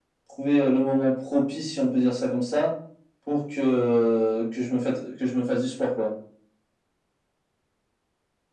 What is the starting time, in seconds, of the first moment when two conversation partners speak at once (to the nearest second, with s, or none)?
none